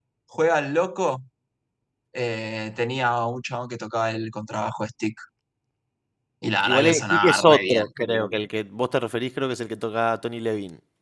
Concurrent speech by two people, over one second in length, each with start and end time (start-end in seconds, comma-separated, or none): 6.6-7.8